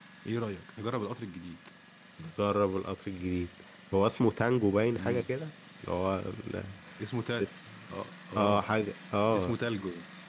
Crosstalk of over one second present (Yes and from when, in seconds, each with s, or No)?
No